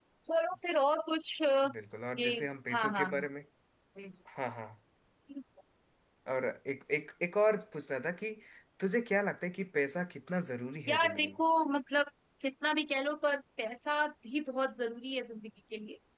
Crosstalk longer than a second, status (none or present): none